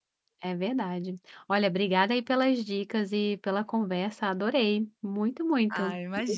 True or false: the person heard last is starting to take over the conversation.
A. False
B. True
B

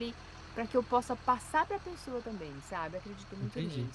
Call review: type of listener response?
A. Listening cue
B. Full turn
B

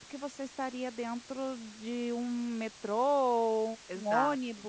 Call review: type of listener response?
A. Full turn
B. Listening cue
B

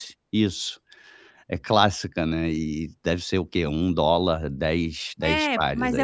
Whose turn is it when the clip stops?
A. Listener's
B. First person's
A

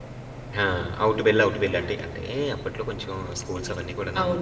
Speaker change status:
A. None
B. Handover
B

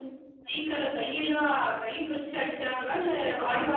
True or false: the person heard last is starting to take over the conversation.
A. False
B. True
B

